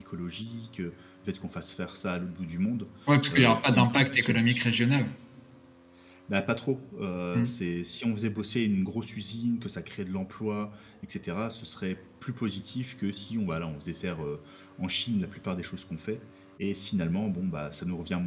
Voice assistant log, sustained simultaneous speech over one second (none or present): present